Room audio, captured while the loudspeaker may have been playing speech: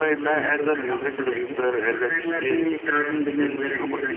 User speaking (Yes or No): Yes